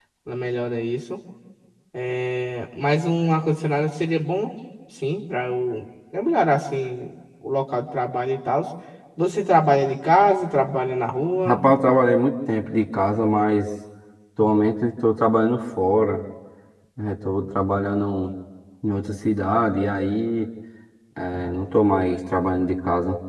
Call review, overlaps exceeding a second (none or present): none